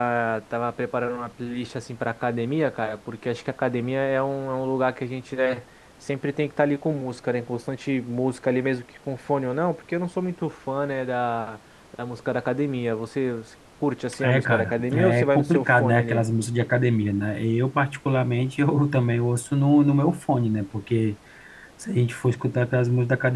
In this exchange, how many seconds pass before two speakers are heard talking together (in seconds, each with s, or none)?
14.2 s